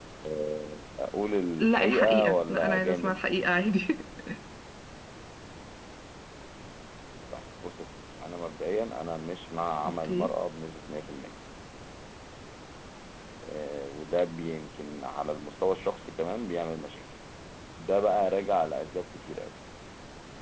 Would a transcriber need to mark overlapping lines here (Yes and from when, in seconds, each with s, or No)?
Yes, from 1.6 s